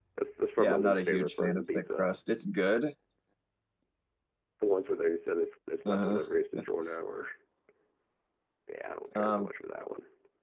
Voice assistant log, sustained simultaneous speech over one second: present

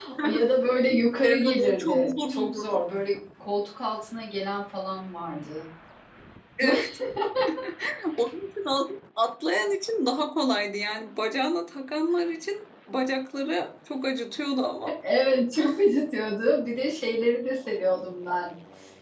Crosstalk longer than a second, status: present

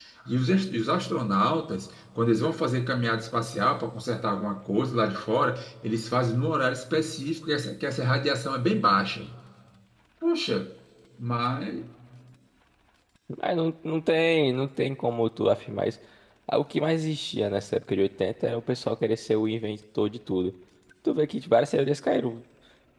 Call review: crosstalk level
none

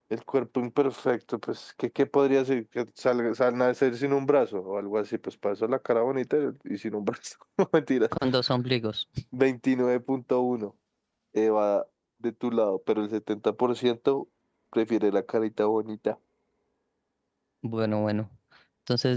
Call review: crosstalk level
none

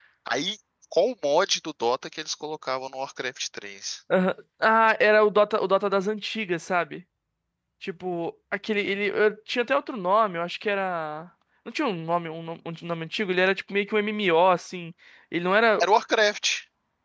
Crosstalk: none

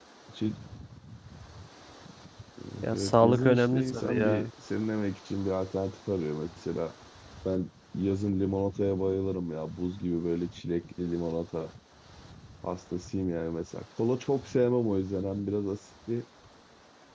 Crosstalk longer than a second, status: present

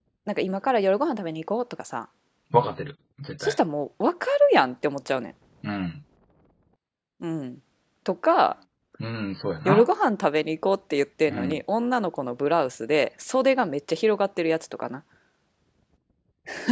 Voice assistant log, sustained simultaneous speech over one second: none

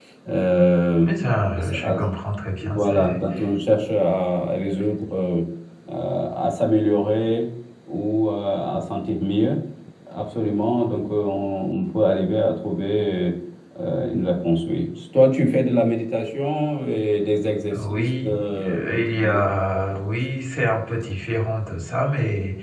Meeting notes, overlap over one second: present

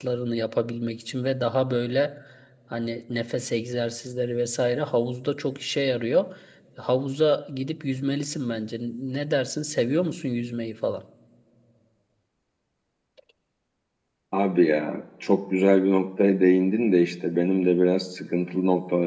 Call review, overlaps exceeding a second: none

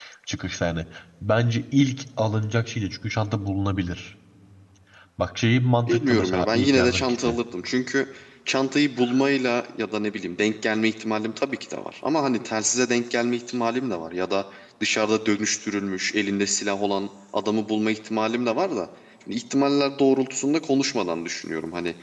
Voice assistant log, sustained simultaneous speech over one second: present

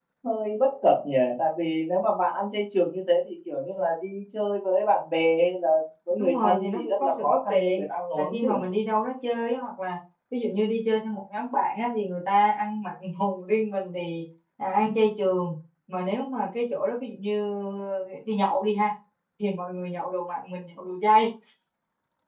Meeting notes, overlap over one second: present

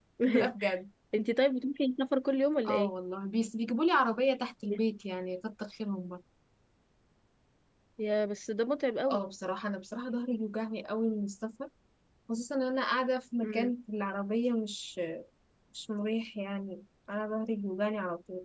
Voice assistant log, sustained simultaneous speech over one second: none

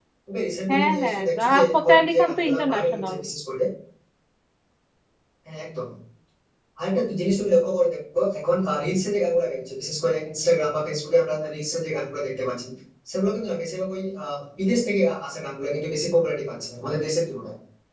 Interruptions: present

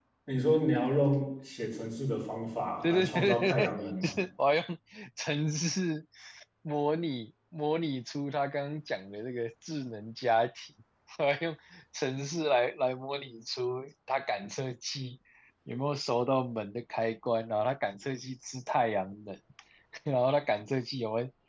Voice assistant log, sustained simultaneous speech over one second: present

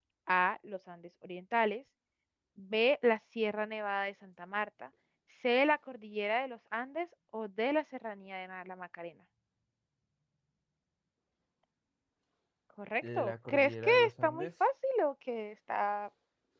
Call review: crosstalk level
present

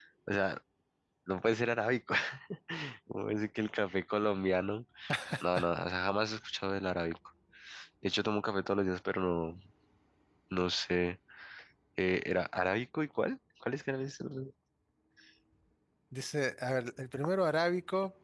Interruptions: none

